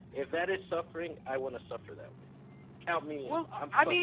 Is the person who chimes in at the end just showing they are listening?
No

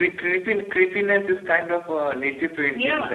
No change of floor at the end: No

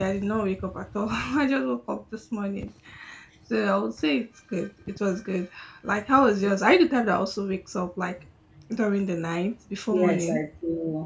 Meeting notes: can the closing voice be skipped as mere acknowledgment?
No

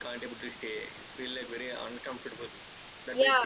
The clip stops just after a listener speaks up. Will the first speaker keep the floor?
No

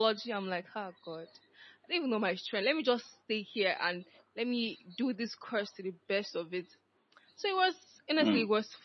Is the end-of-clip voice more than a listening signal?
No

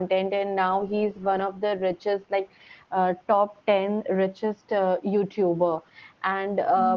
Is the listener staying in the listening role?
Yes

